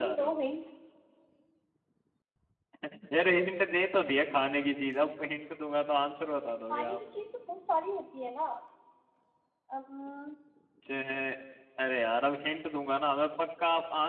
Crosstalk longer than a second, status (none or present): none